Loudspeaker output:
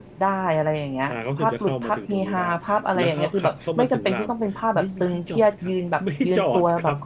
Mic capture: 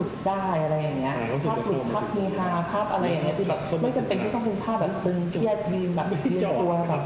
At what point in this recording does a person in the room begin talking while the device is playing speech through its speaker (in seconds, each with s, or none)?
none